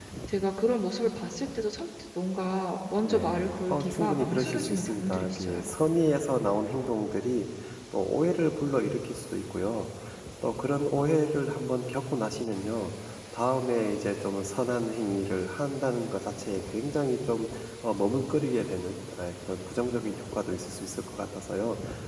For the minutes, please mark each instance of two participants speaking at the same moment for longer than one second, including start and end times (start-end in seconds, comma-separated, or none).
3.0-5.6